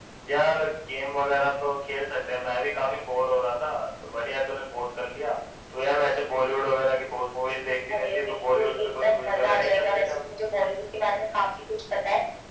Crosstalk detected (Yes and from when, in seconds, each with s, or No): Yes, from 7.9 s